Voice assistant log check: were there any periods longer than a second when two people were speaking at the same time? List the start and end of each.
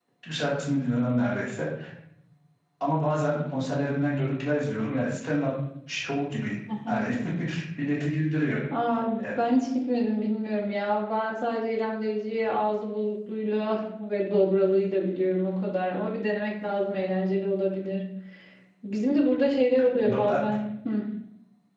none

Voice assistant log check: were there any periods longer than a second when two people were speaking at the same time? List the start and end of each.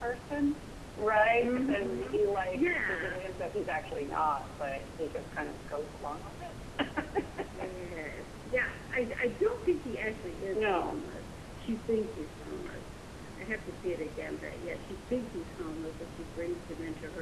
1.4-3.2

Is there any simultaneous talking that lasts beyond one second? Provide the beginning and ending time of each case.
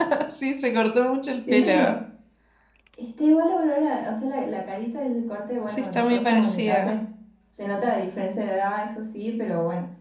5.7-7.0

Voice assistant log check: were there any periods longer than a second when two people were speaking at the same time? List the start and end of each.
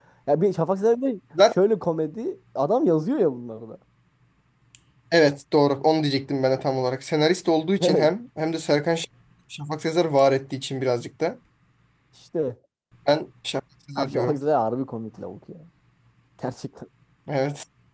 none

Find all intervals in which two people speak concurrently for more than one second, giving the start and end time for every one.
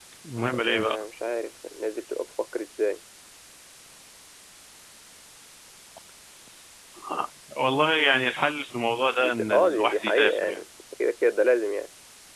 9.2-10.6

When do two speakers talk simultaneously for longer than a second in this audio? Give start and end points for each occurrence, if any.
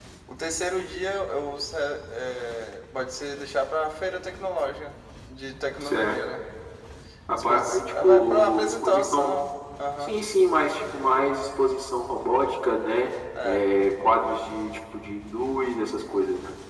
7.3-9.3

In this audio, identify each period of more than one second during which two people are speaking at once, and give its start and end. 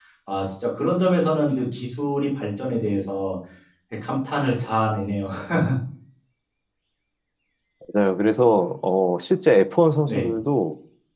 none

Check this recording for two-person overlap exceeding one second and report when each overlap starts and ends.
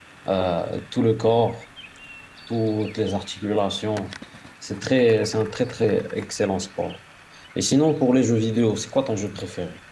none

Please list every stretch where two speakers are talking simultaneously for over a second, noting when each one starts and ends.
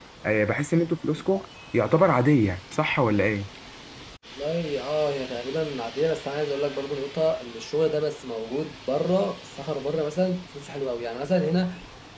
none

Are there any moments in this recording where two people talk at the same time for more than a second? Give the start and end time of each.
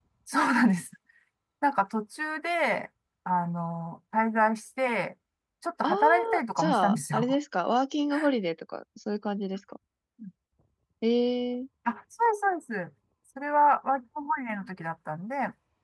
5.8-7.3

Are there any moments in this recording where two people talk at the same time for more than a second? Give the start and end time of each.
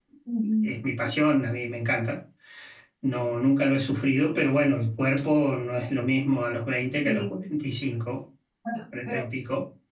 none

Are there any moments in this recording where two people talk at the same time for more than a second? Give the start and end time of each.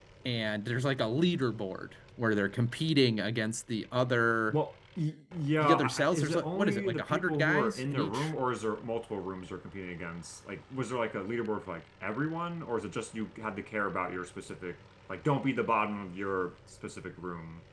5.6-8.3

